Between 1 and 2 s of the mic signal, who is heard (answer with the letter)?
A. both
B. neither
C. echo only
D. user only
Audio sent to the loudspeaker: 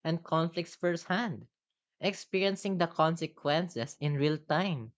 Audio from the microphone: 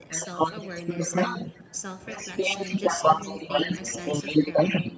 A